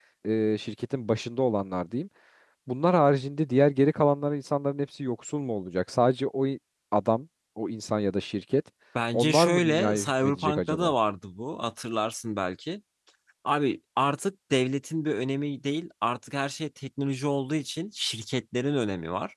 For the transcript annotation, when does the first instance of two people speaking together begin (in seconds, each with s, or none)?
9.1 s